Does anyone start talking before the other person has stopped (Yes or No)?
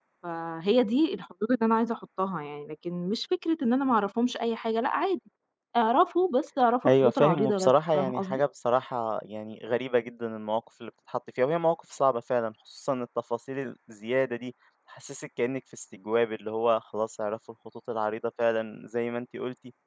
Yes